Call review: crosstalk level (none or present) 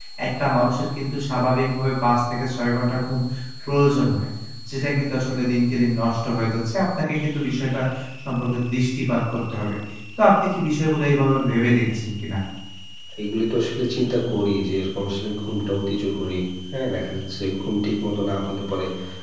none